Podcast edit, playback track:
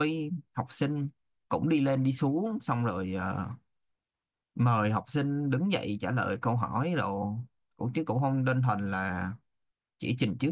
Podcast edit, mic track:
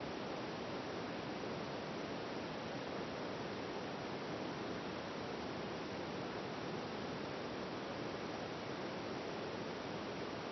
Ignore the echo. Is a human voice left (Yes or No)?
No